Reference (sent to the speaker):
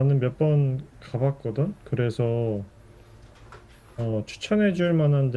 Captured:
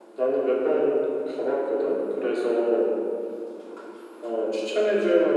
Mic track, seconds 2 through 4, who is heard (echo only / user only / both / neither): echo only